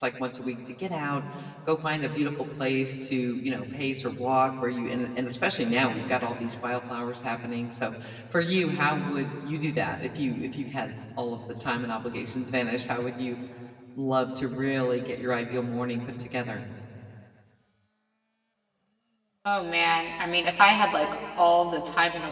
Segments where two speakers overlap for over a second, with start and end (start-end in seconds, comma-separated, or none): none